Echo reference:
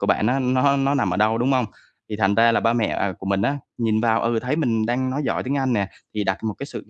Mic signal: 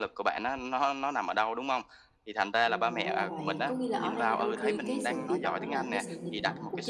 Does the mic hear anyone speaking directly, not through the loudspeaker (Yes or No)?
Yes